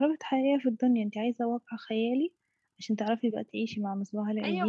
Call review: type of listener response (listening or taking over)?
taking over